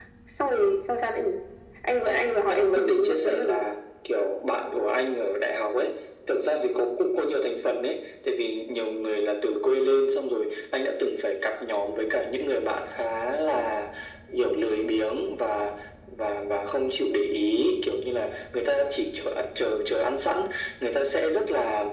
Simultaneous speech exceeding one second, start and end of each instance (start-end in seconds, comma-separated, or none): 2.0-3.6